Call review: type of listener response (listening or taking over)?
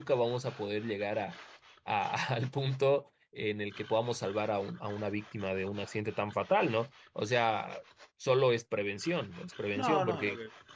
taking over